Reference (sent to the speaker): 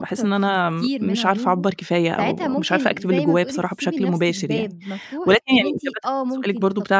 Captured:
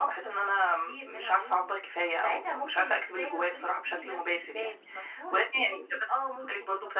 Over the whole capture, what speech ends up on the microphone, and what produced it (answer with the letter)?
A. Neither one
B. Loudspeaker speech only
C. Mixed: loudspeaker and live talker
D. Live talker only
B